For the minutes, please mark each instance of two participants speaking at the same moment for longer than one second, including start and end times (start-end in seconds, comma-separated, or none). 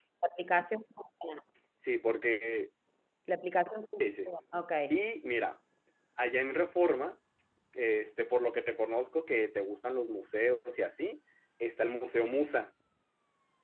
none